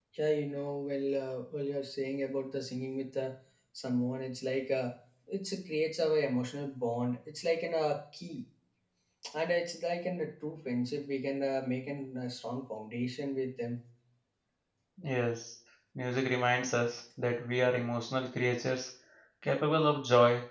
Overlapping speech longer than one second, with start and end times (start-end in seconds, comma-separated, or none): none